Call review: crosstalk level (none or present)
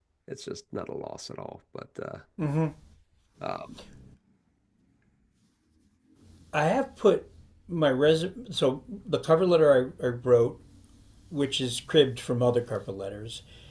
none